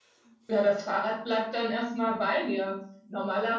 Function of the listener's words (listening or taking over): listening